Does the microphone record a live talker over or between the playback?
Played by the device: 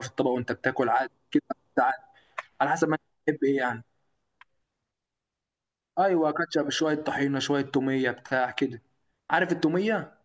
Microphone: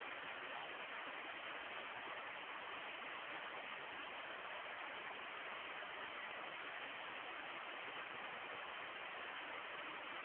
No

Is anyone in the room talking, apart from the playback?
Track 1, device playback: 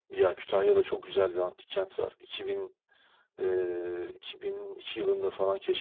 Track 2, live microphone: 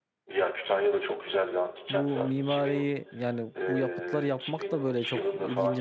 Yes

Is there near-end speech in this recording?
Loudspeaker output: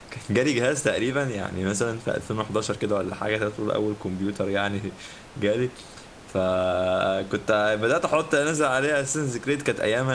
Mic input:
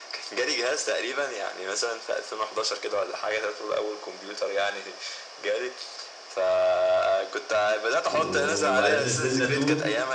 Yes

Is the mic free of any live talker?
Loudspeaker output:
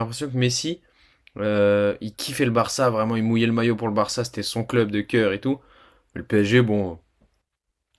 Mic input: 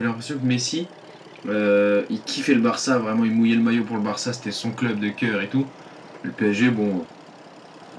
Yes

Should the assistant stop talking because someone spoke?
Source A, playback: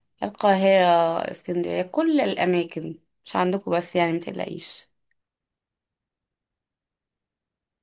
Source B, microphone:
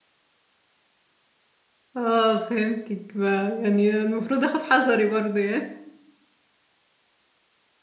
Yes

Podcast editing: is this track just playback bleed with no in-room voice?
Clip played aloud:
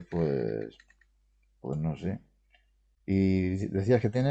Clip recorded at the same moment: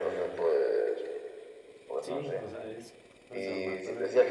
No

